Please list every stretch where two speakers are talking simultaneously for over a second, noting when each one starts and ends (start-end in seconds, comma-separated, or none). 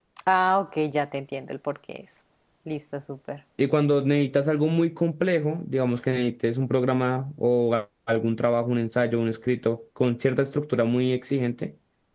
none